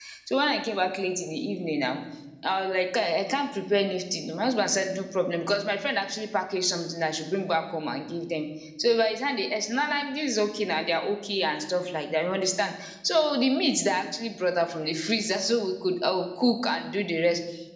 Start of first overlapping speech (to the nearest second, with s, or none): none